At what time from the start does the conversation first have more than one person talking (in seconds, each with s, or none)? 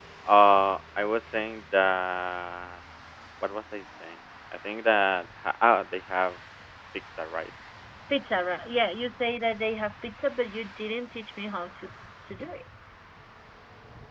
none